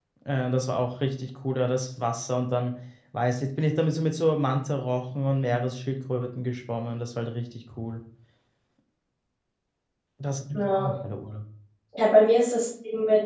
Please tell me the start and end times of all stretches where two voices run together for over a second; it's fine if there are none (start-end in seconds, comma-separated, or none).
none